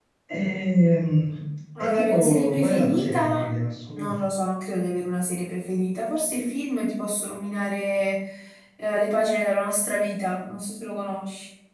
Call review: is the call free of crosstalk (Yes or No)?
No